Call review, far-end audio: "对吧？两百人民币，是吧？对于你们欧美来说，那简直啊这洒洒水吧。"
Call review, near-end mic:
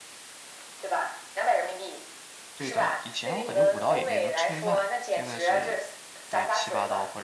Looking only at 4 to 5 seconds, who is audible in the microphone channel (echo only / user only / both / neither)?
both